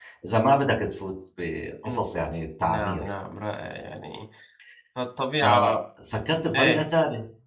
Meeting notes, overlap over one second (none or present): none